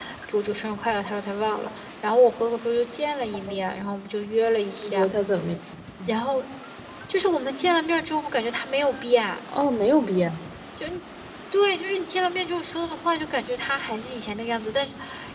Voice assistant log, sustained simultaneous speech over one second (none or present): none